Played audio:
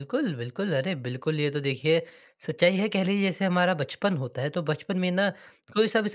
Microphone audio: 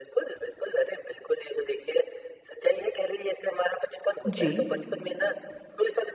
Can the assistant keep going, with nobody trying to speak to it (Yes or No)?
No